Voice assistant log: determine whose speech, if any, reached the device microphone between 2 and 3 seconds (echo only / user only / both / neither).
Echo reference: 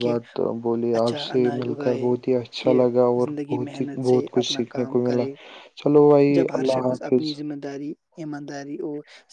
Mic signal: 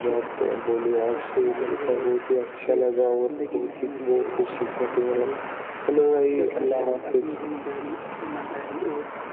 echo only